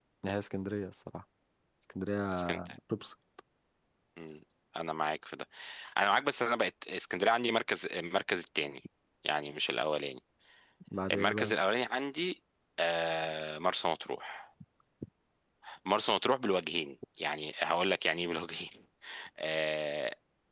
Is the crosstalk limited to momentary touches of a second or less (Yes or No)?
Yes